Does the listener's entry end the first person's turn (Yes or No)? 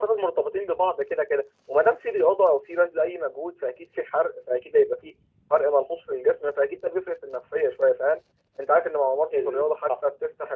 No